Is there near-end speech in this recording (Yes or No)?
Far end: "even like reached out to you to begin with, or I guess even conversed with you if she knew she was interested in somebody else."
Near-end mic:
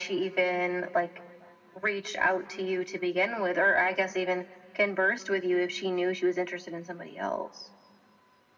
No